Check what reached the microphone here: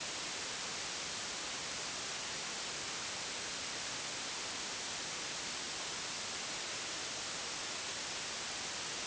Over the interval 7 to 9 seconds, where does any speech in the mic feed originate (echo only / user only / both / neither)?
neither